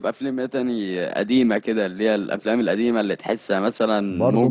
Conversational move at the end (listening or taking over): taking over